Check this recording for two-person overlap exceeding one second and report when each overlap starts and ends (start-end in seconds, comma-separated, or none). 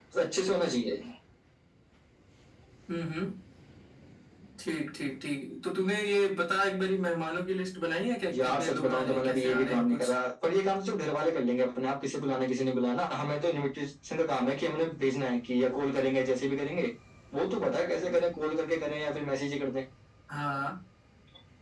8.3-10.1